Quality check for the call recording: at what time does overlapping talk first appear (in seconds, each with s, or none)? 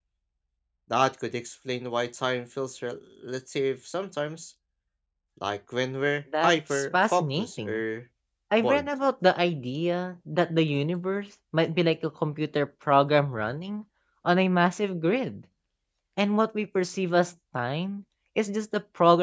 6.4 s